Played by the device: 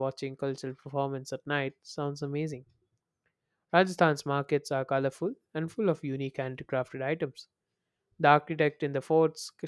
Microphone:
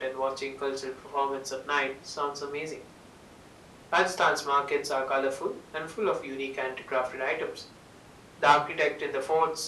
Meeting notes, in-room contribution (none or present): none